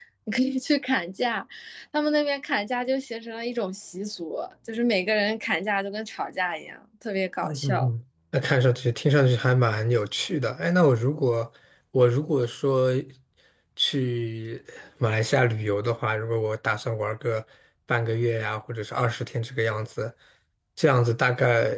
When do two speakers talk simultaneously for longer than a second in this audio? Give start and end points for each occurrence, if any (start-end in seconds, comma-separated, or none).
none